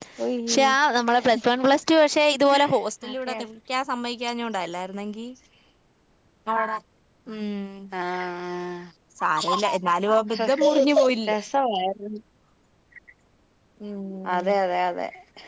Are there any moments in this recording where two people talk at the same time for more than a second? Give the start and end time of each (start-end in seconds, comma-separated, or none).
none